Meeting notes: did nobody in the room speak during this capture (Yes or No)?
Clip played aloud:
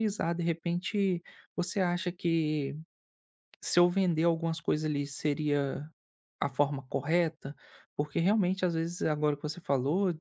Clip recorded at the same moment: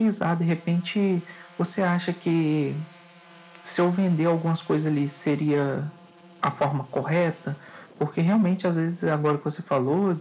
Yes